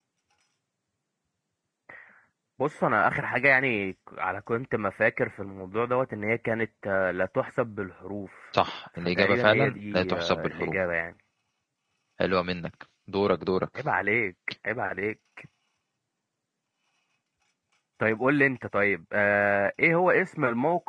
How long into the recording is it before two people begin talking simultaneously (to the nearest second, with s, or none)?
9 s